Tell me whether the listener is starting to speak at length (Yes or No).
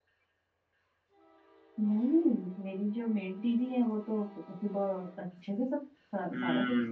Yes